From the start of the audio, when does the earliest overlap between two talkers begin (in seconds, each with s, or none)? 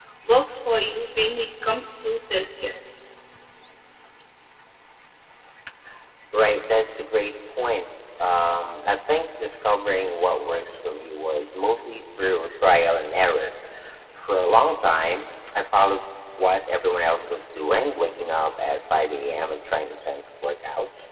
none